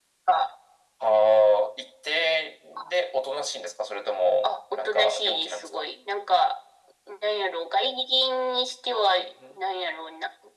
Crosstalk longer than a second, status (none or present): present